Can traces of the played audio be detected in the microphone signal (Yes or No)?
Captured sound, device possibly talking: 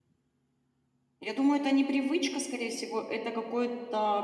No